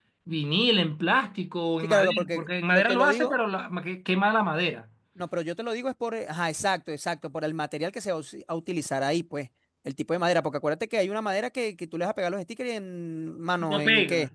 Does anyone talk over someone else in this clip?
Yes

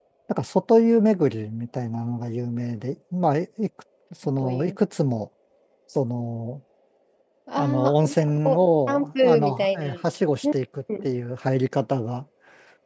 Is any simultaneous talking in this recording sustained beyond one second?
Yes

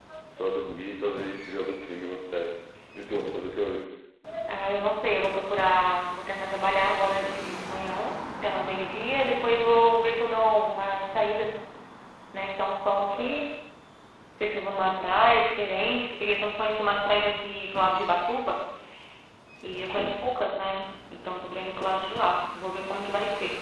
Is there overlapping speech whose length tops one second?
No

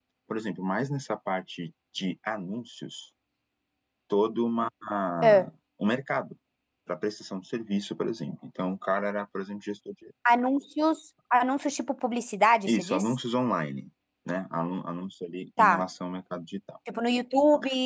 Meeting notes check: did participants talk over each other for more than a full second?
No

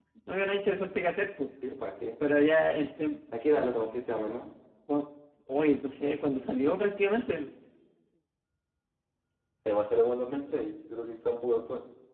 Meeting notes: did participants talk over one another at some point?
No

